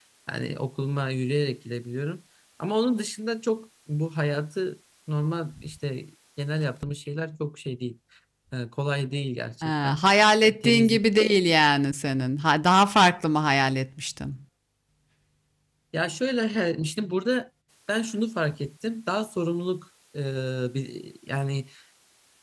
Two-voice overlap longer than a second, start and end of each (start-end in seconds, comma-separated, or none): none